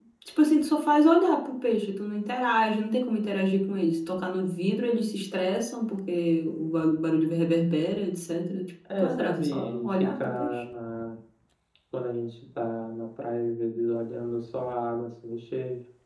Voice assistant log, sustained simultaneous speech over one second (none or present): present